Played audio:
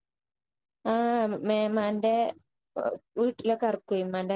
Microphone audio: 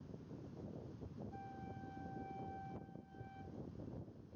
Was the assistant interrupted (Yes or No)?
No